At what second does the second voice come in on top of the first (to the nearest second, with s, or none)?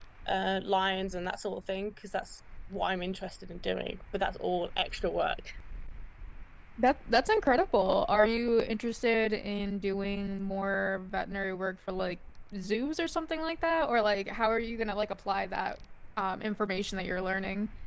none